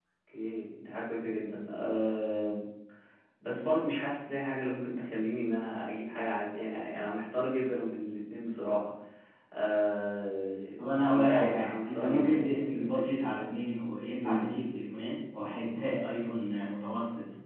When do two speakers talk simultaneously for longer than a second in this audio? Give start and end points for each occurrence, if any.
10.8-13.6

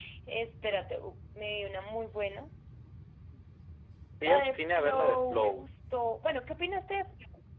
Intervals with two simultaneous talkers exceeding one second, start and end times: 4.2-5.7

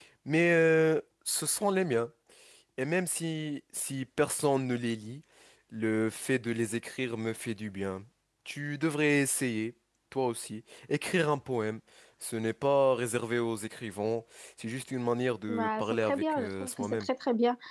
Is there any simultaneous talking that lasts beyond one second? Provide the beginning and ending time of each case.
15.5-17.1

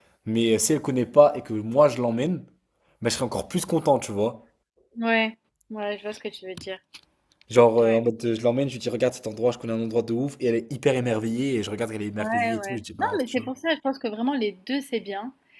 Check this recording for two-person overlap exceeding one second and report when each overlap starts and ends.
12.2-13.5

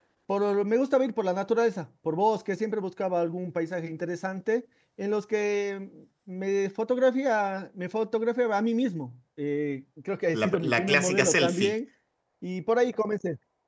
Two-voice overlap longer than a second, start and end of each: 10.3-11.7

